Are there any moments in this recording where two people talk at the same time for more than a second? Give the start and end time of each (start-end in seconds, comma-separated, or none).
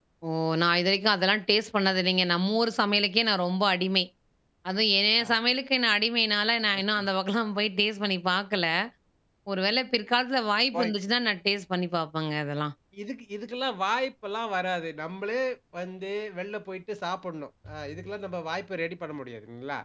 none